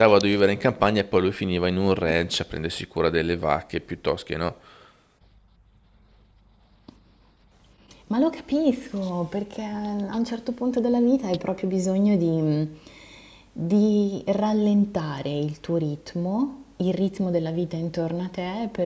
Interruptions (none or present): none